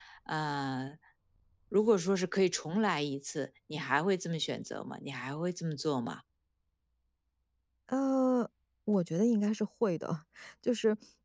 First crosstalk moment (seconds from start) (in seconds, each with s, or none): none